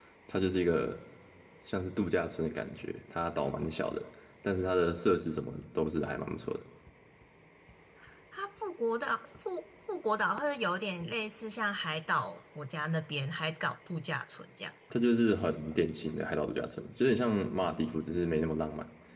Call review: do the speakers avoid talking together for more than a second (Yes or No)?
Yes